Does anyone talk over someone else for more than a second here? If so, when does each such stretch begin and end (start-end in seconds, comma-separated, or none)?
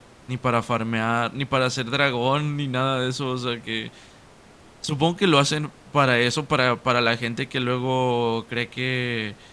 none